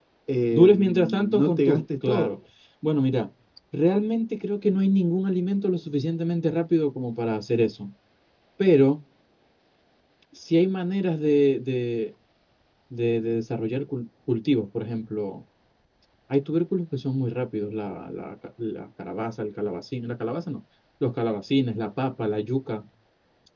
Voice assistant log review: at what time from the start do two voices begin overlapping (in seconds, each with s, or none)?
0.5 s